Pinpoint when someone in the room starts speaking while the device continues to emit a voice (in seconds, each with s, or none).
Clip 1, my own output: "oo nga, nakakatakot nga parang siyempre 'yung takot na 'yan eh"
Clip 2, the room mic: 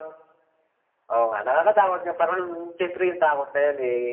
none